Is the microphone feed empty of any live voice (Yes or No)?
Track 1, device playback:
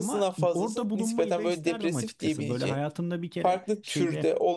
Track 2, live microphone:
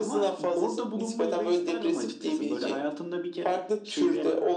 Yes